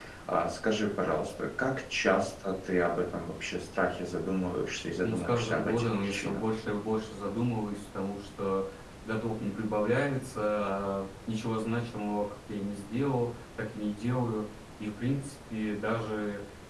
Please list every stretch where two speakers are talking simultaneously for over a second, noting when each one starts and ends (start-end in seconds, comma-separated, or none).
5.0-6.4